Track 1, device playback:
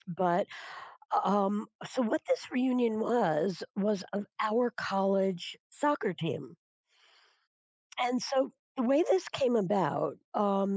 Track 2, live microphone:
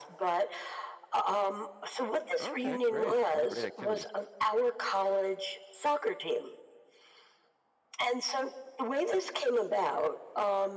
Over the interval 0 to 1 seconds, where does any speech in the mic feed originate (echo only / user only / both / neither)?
echo only